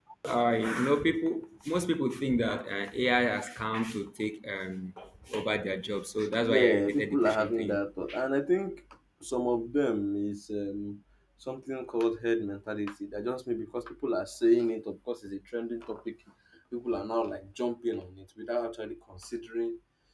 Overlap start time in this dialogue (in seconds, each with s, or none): 6.2 s